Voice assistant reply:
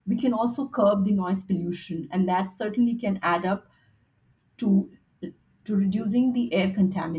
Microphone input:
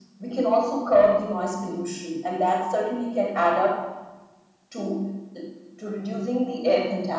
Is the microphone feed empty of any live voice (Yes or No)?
Yes